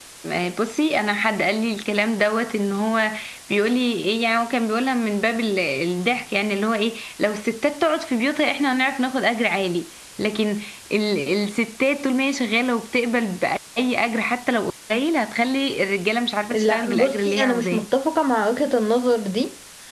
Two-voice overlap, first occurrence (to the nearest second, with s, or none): 17 s